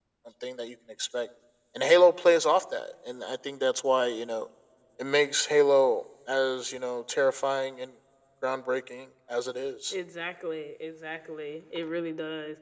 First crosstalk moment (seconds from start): none

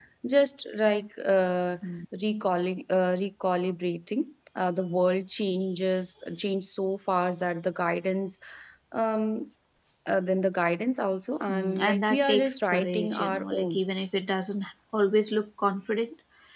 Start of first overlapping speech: 11.5 s

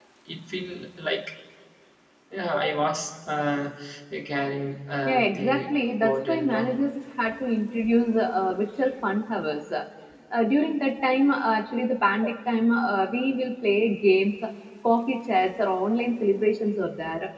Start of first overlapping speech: 5.0 s

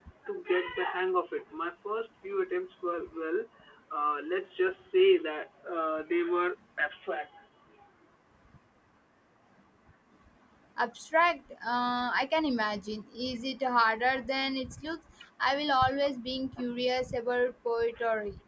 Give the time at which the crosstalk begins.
none

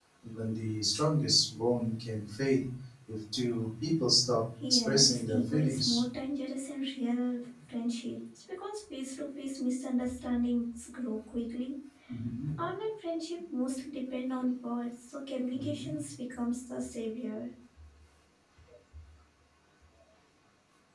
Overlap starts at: 4.7 s

